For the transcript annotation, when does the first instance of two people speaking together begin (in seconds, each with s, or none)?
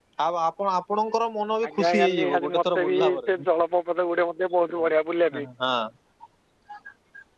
1.6 s